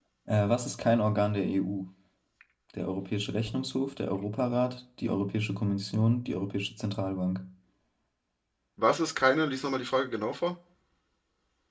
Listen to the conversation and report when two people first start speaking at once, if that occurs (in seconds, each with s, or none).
none